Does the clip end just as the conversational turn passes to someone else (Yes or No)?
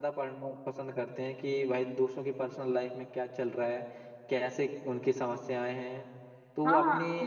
Yes